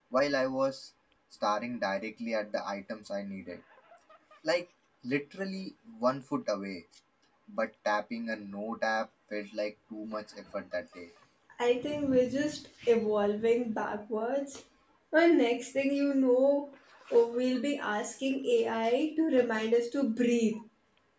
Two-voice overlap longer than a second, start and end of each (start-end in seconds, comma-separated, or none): none